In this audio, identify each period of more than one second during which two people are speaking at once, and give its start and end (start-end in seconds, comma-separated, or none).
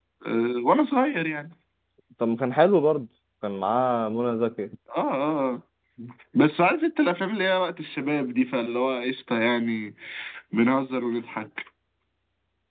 none